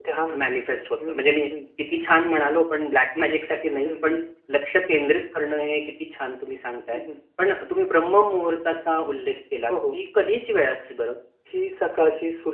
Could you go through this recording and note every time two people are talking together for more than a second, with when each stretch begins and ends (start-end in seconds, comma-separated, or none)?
none